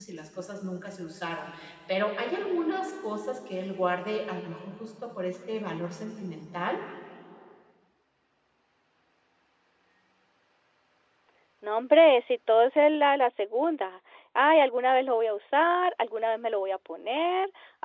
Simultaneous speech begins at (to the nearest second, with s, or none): none